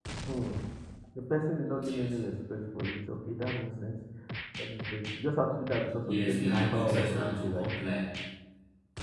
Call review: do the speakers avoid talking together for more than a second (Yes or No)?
No